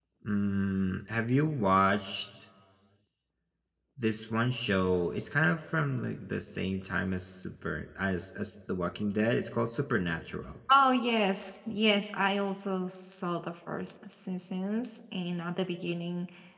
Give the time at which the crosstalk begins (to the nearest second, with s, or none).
none